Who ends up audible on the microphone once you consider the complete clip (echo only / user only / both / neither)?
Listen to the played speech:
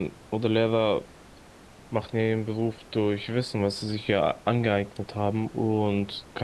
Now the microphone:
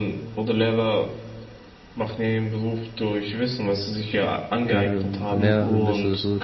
both